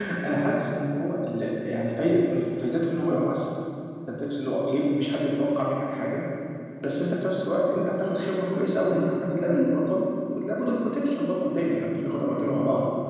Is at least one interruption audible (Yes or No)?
No